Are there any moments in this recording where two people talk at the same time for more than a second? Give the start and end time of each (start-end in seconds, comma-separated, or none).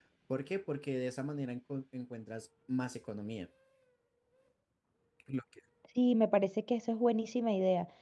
none